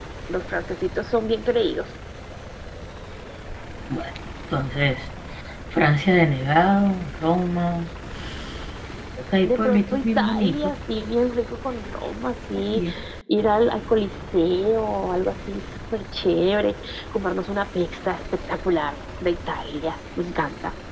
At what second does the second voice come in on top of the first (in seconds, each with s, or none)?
9.4 s